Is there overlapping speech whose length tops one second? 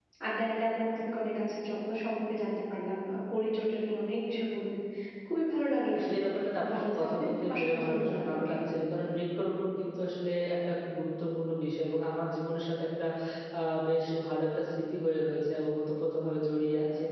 Yes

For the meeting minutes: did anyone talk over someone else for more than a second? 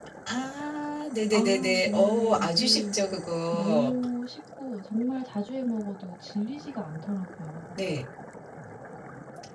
Yes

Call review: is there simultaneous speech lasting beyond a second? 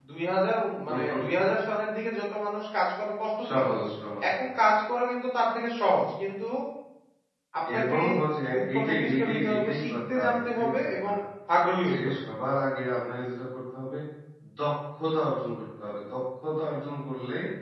Yes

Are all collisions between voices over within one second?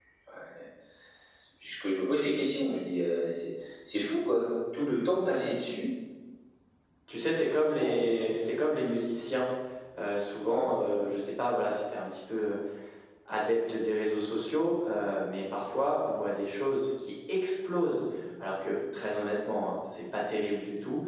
Yes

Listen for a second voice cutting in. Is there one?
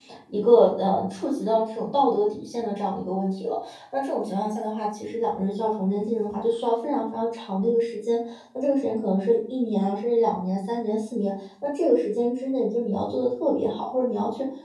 No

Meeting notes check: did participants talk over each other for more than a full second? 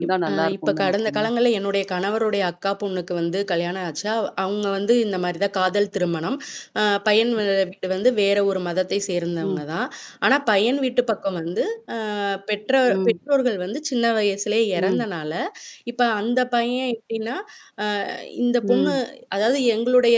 Yes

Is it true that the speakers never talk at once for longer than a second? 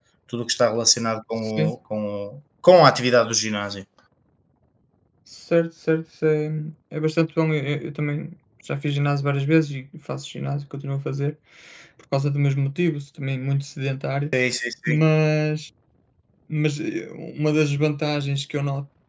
Yes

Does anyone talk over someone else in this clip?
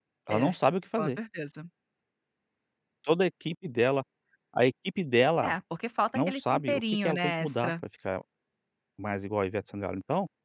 Yes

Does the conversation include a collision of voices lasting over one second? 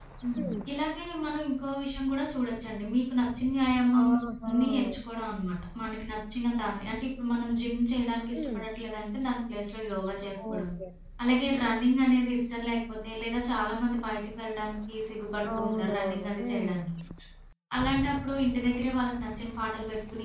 Yes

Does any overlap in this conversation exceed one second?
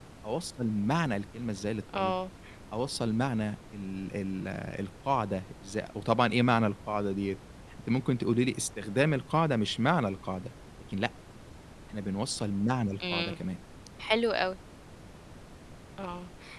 No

